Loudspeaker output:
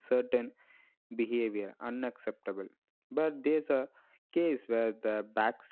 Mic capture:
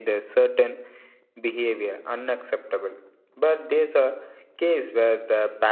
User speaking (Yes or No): No